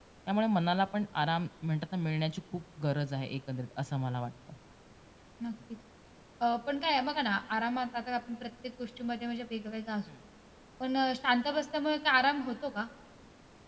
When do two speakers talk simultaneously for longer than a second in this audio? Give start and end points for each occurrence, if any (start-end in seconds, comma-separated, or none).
none